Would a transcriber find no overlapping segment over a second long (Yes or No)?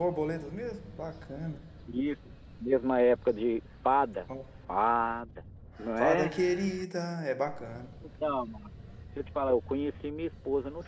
Yes